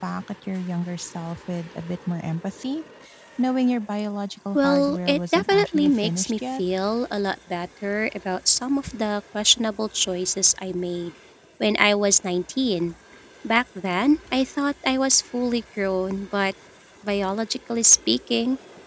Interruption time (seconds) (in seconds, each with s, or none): 4.6 s